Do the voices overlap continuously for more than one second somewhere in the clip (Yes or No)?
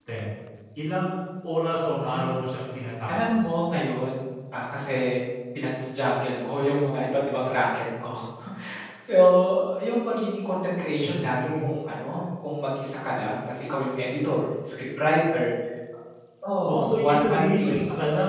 Yes